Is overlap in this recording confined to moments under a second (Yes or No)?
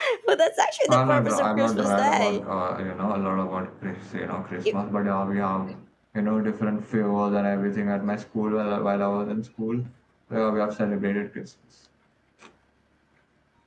No